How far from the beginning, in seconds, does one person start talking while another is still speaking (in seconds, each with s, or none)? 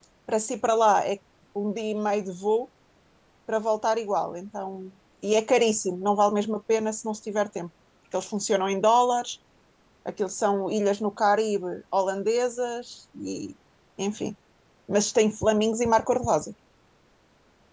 none